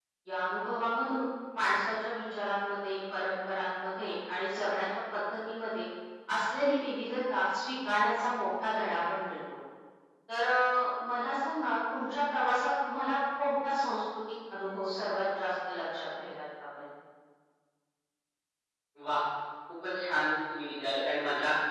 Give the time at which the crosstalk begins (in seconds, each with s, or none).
none